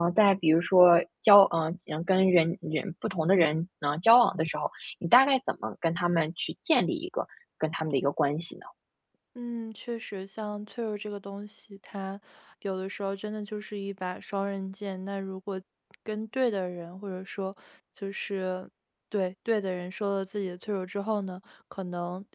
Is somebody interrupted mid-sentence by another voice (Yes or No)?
No